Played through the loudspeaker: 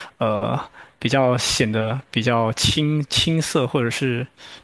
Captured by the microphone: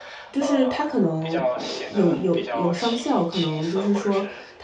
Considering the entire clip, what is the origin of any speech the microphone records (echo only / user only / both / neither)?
both